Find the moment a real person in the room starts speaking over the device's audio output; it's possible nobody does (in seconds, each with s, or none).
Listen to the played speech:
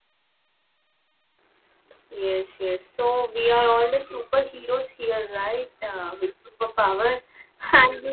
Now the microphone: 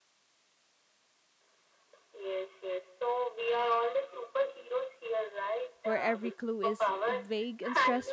5.9 s